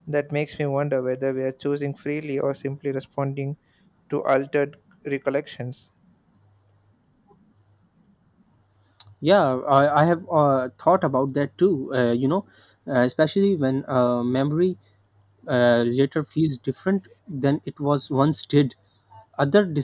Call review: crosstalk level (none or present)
none